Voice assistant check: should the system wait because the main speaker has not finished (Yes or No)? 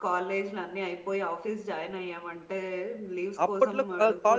No